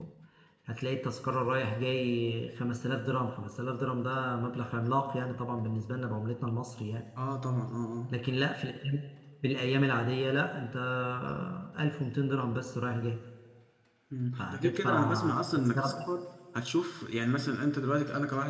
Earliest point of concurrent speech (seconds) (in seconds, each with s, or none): 14.4 s